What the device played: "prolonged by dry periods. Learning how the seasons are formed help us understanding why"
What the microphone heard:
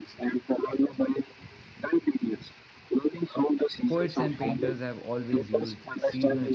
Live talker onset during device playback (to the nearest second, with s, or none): 4 s